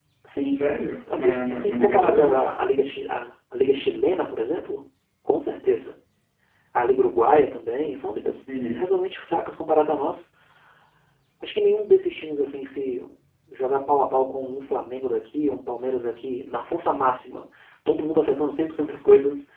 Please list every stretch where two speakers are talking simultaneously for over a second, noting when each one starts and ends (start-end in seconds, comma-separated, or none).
1.1-2.5